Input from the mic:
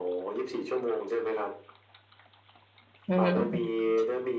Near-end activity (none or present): present